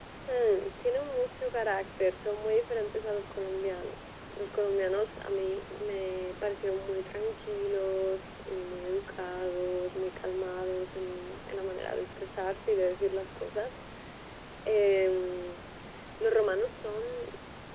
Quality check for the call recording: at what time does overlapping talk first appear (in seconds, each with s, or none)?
none